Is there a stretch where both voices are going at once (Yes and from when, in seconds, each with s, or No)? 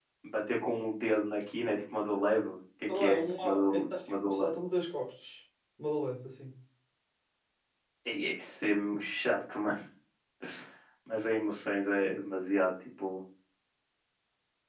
Yes, from 2.9 s